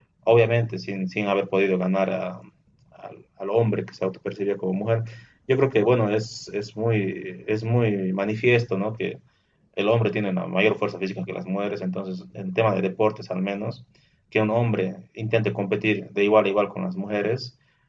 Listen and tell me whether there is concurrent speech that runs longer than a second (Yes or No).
No